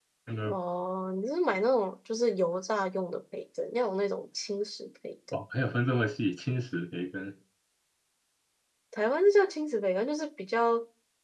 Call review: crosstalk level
none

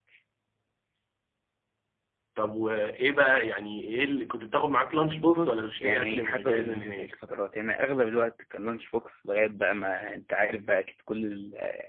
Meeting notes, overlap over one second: present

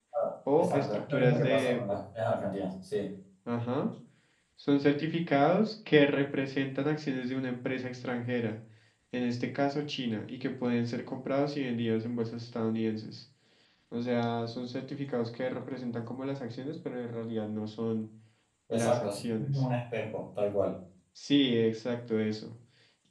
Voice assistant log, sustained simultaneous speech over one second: present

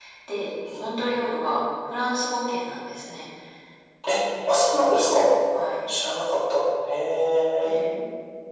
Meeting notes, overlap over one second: none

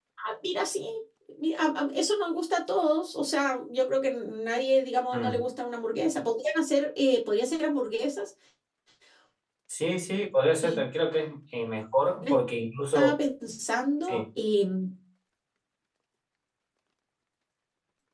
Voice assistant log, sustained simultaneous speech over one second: none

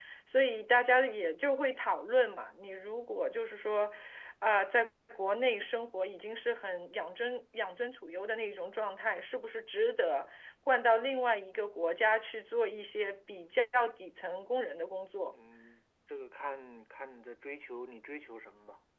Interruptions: none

